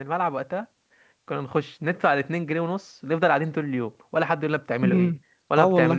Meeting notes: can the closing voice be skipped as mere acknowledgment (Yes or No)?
No